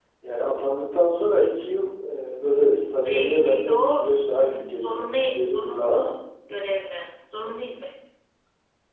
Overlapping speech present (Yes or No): Yes